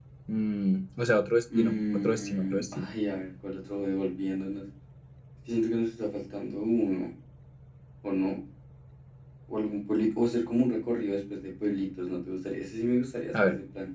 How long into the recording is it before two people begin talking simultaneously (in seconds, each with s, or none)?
1.5 s